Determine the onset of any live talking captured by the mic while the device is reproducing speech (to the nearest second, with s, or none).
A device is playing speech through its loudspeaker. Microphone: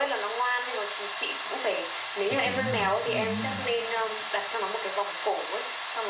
2 s